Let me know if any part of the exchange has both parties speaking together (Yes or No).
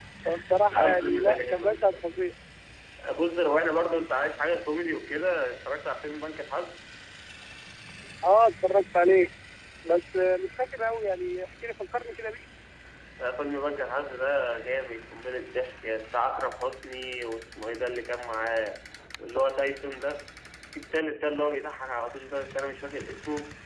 Yes